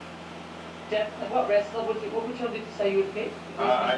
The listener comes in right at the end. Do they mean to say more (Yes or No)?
Yes